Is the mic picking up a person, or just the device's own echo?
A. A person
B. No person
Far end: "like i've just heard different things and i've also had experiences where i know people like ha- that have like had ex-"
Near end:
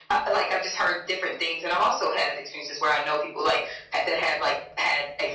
B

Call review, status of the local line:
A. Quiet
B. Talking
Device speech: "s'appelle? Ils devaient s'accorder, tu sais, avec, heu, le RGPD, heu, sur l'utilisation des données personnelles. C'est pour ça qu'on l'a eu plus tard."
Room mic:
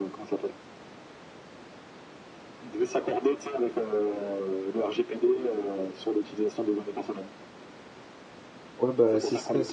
B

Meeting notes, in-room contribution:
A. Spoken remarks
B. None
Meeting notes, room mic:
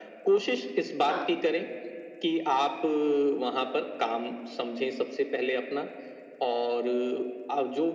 A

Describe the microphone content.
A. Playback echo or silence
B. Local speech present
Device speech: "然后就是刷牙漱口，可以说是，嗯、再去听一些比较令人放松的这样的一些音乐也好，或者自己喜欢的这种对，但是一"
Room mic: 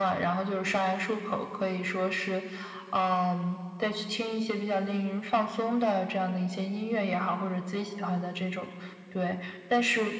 A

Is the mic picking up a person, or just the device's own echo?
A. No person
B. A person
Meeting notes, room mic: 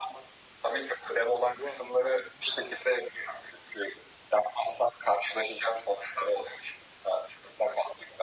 B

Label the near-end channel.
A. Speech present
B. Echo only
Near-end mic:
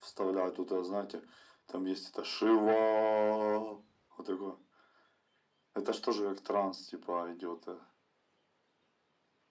B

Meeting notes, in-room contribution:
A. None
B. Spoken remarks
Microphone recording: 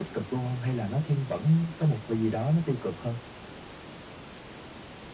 A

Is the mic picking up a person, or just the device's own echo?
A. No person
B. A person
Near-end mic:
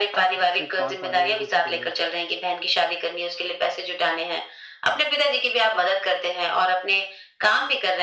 B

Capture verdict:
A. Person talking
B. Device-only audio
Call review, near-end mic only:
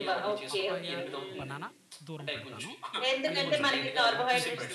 A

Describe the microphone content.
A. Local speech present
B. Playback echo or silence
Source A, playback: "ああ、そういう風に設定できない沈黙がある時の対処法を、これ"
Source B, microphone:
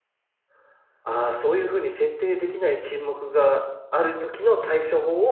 B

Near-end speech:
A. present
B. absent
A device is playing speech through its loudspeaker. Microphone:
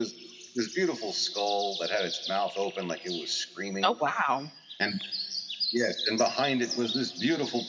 A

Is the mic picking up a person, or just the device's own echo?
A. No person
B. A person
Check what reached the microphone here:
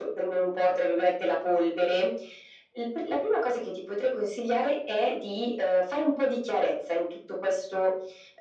A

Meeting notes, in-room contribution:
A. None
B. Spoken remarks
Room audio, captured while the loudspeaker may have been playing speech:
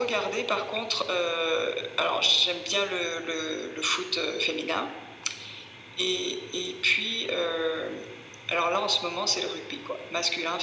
A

